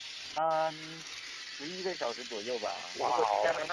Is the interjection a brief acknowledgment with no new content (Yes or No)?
Yes